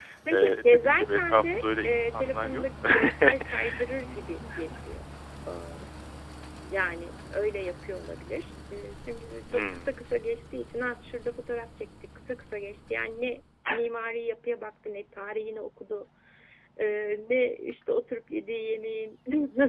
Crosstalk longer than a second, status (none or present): present